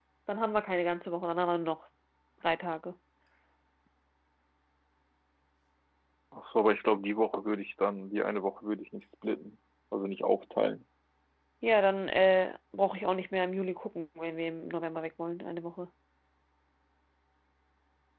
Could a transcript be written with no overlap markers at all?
Yes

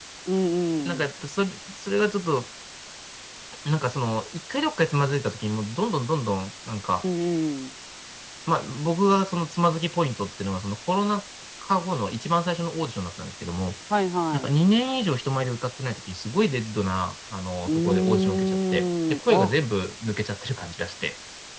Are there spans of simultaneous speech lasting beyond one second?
Yes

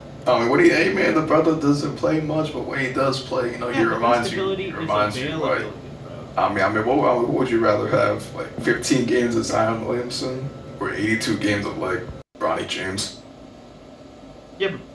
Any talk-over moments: Yes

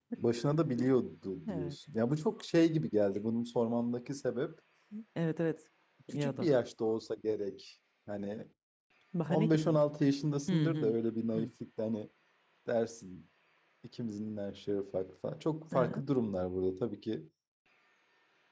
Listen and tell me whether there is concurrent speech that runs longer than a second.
No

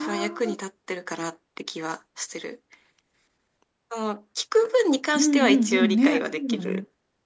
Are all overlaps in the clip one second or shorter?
No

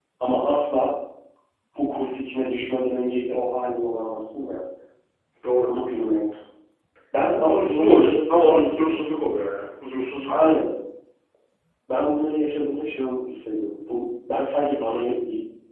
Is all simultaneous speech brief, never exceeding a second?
No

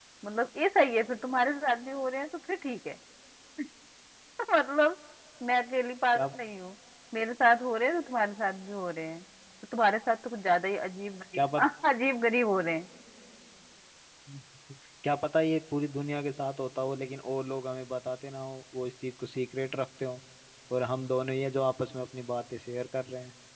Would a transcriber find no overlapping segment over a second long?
Yes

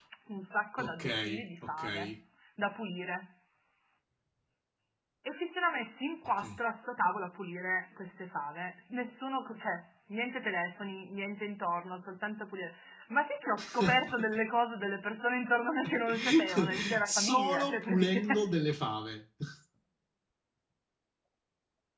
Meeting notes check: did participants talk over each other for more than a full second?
Yes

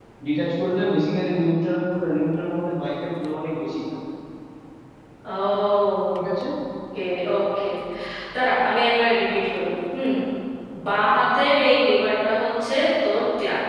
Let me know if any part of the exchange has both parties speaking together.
No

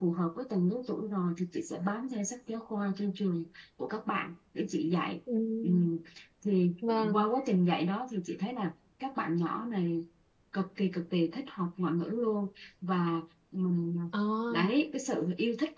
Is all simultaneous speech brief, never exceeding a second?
Yes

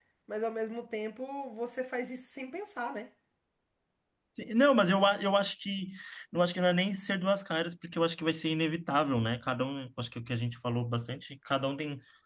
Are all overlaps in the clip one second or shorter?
Yes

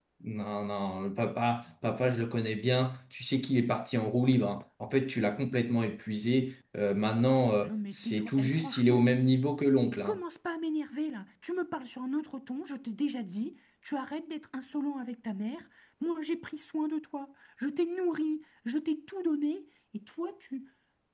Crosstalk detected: Yes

